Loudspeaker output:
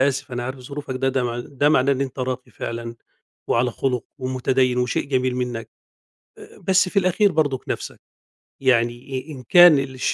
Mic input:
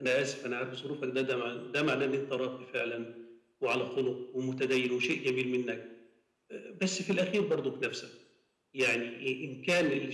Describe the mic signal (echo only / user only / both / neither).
echo only